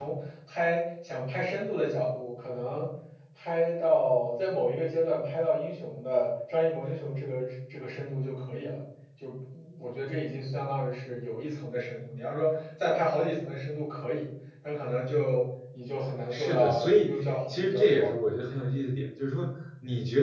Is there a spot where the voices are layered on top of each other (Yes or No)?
Yes